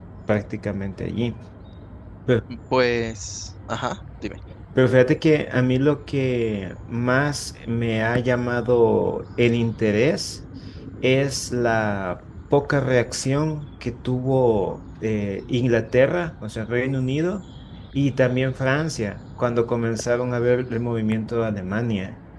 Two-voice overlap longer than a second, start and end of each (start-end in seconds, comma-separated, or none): none